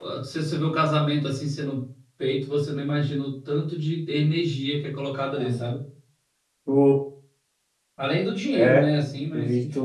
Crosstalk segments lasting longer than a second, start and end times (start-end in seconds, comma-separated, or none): none